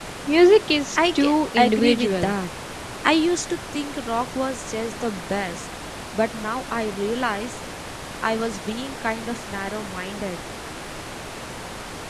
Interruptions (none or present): present